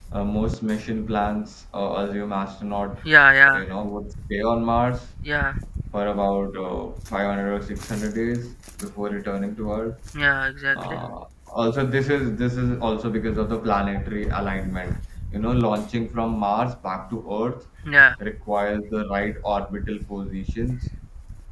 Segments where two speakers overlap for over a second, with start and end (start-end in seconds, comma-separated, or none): none